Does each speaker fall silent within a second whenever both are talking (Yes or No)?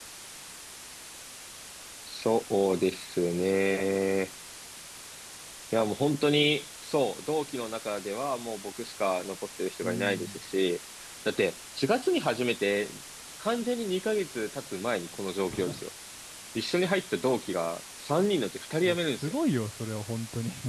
Yes